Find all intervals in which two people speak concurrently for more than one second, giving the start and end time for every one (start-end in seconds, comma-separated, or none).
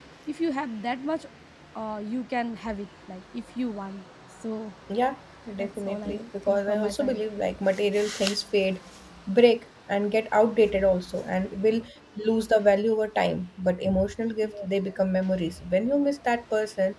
5.6-7.2